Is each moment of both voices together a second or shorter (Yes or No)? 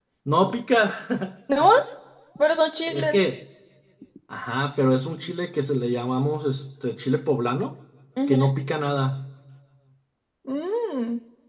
Yes